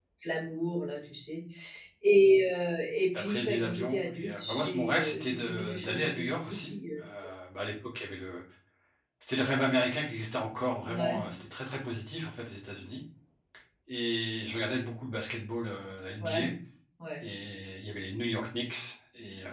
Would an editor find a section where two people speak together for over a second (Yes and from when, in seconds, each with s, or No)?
Yes, from 3.2 s